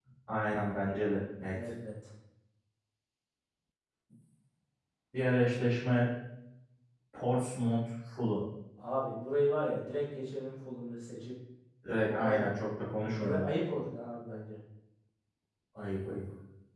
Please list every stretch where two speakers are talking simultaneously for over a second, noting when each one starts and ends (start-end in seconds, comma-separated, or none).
none